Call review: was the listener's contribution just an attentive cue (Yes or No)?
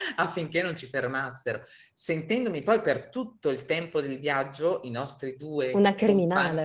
Yes